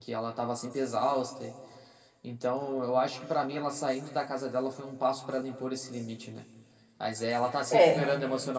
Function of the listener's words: listening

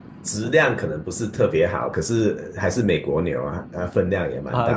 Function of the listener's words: taking over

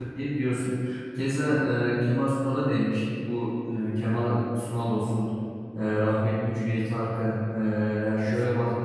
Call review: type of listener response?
listening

